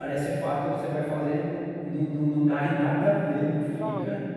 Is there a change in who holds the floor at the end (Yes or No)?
No